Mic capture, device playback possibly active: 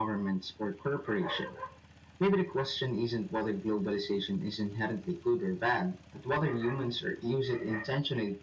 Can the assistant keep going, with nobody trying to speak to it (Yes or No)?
Yes